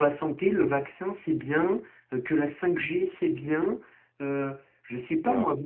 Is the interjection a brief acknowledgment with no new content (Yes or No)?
Yes